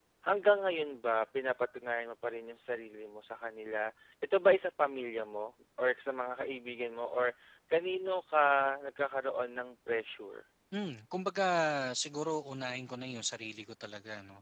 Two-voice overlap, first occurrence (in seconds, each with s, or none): none